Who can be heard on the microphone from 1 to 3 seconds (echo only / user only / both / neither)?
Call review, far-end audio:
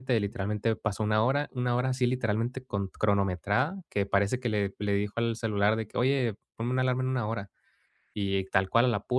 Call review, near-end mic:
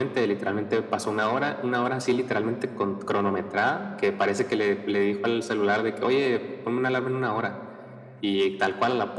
echo only